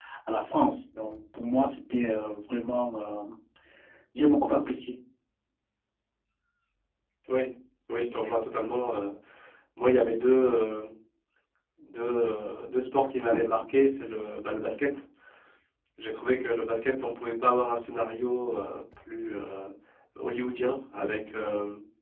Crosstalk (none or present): none